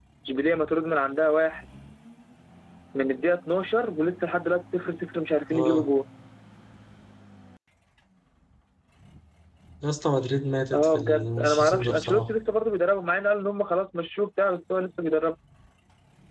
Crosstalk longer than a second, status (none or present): present